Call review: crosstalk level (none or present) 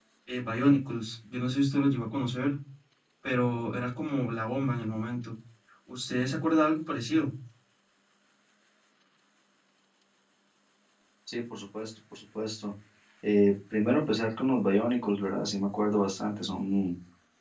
none